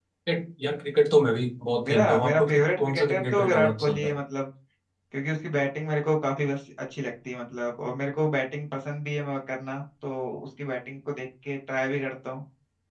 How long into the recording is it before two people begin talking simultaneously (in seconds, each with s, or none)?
1.8 s